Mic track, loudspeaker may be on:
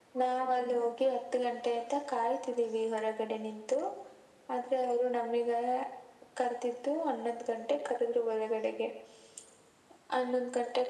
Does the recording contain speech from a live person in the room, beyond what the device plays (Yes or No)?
No